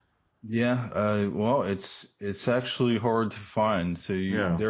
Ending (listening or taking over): listening